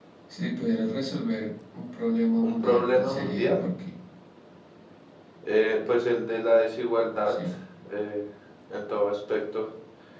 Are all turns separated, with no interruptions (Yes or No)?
No